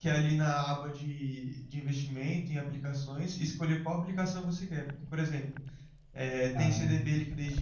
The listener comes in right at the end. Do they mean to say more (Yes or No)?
No